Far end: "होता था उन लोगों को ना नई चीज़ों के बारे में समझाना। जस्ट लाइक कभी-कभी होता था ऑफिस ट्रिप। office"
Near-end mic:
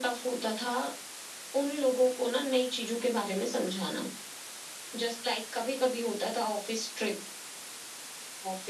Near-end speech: none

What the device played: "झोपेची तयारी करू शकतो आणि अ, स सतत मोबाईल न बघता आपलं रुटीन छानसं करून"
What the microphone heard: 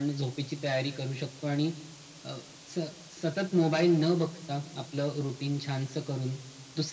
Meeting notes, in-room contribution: none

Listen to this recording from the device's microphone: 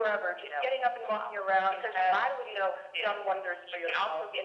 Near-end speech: none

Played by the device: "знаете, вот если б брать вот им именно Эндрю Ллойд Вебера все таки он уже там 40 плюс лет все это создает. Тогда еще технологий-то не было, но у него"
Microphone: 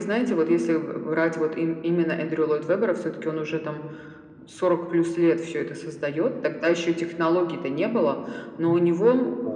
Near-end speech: present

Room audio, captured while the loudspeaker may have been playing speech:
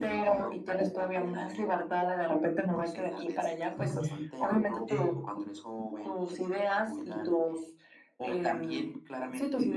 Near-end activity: present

